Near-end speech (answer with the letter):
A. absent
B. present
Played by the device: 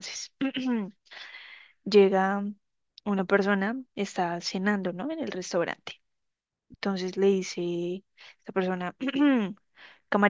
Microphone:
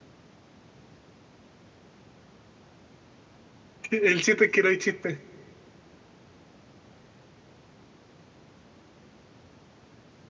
B